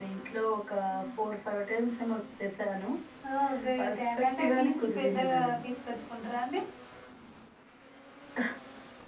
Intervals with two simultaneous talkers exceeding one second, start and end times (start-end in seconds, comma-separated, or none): 3.8-5.6